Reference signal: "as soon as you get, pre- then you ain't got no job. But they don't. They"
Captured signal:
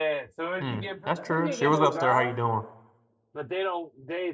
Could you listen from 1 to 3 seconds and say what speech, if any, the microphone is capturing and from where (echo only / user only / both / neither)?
both